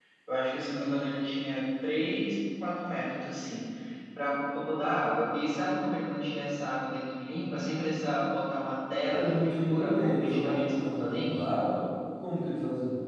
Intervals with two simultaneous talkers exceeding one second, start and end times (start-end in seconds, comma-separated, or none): 9.1-11.4